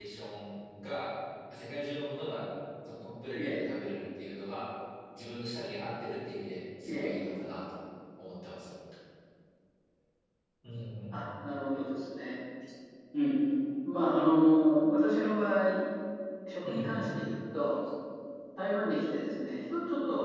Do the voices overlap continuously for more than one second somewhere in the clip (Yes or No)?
No